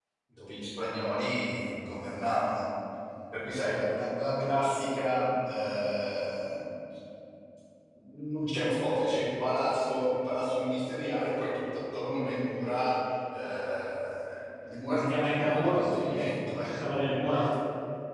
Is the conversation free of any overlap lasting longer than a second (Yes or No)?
No